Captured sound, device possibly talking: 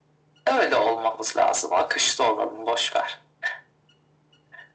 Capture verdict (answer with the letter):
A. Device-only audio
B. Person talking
A